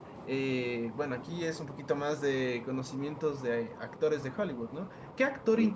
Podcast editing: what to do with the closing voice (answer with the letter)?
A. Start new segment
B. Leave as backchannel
B